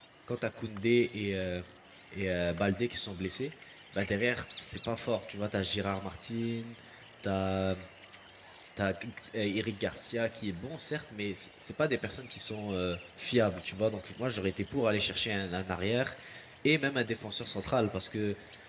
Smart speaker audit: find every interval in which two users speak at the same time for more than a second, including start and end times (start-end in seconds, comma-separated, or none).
none